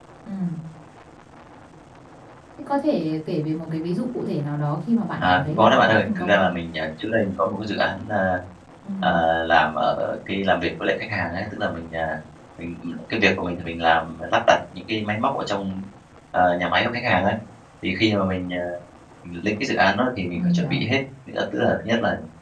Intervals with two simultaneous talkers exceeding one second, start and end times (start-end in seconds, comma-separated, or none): 5.2-6.5